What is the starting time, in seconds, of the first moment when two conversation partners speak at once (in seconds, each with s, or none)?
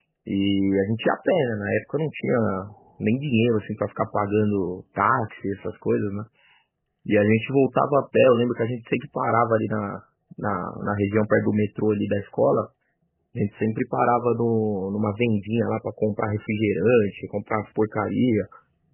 none